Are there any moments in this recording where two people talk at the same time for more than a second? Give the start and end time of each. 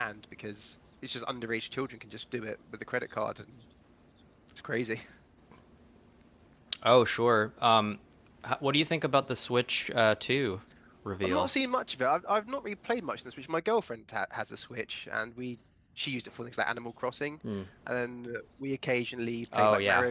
none

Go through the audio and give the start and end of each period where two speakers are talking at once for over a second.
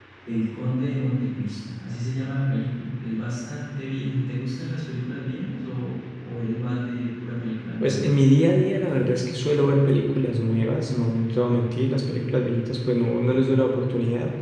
none

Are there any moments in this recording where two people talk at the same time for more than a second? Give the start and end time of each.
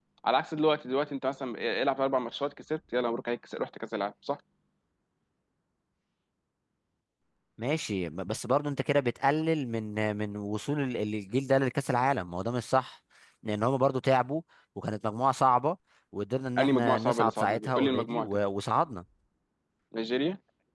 16.6-18.4

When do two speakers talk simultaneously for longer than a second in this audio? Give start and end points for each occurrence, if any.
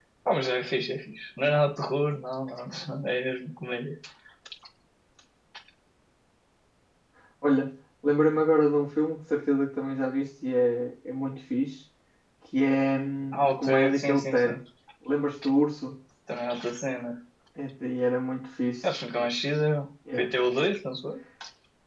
13.3-14.6

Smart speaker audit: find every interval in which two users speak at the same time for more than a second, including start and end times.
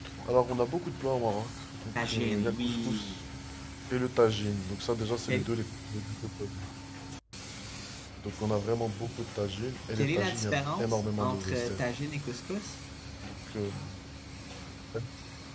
2.0-3.2, 10.0-11.9

